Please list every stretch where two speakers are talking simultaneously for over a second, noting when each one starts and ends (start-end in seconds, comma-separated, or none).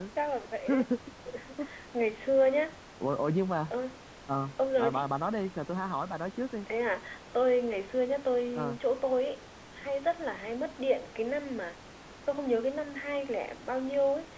none